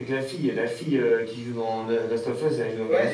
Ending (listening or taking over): taking over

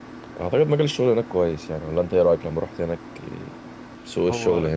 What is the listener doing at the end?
taking over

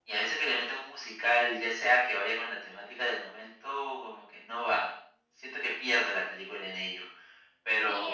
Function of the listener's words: taking over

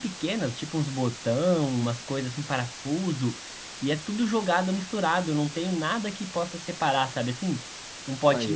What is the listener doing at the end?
listening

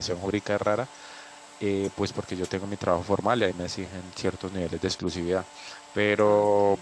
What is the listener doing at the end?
listening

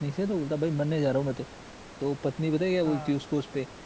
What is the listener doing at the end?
listening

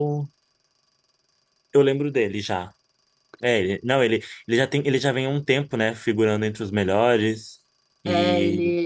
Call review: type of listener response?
taking over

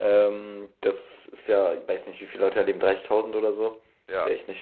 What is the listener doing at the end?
listening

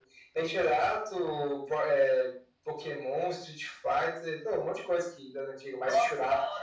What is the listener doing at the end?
taking over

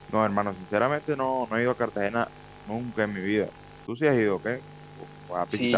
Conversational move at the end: taking over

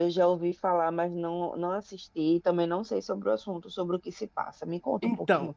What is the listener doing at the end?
taking over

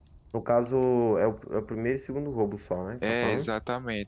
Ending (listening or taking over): taking over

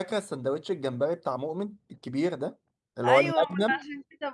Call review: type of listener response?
taking over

